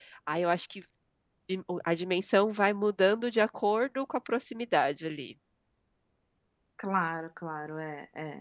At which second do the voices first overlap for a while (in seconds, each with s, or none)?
none